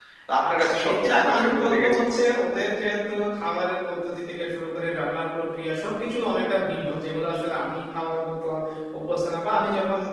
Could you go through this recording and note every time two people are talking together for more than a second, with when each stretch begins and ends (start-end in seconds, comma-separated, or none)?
0.5-2.4